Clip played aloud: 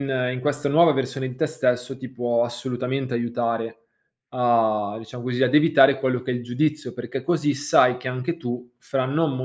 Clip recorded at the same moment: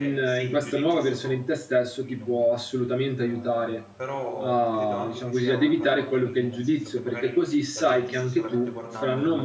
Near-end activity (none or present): present